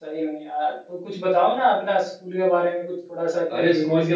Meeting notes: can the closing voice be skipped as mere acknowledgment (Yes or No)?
No